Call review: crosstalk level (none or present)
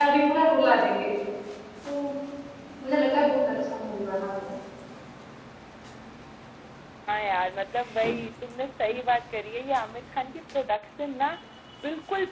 none